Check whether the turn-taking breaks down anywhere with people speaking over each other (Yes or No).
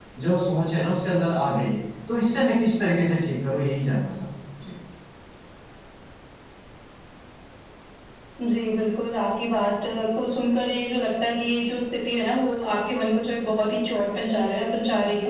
No